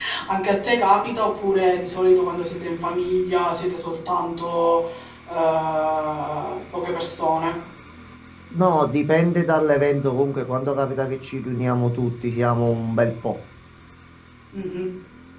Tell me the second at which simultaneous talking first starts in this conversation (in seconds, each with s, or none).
none